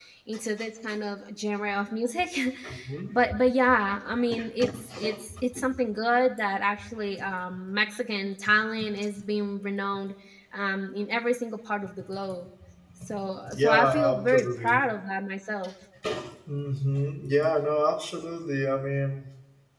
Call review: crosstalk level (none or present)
present